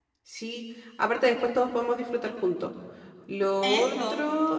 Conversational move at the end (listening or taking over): listening